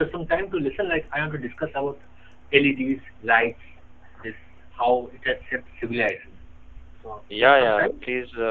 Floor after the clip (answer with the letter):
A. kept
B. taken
B